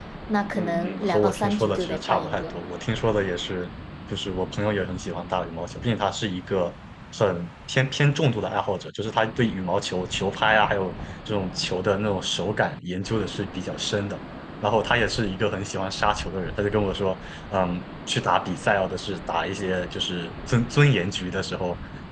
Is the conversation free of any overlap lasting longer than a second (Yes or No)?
No